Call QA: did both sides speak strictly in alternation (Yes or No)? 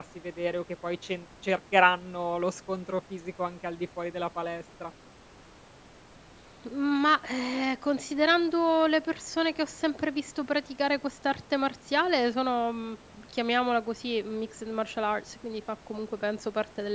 Yes